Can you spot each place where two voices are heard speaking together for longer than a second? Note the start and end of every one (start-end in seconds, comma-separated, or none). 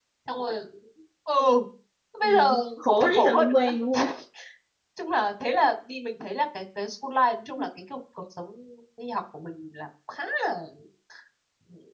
2.2-3.7